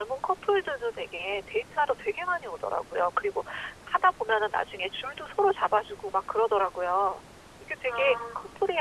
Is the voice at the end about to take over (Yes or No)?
No